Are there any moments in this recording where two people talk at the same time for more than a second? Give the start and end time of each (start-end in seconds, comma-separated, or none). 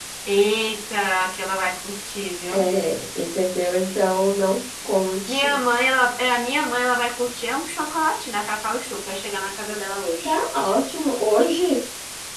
none